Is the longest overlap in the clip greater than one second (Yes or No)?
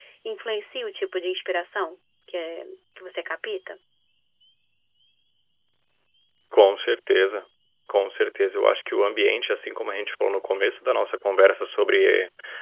No